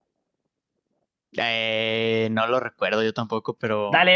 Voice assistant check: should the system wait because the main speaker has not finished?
No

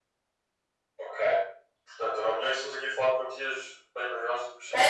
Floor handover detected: Yes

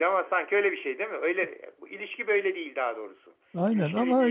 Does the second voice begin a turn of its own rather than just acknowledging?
Yes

